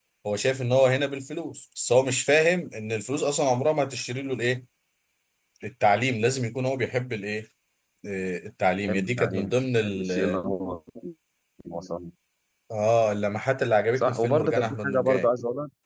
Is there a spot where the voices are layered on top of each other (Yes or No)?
Yes